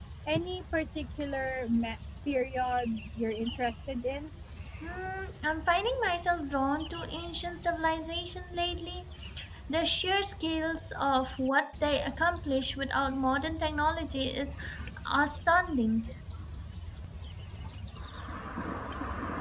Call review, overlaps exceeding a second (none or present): none